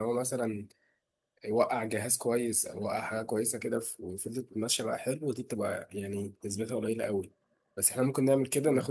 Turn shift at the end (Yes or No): No